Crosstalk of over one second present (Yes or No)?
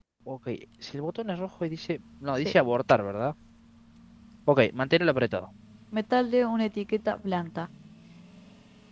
No